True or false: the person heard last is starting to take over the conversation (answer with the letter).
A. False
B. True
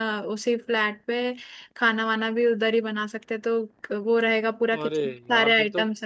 B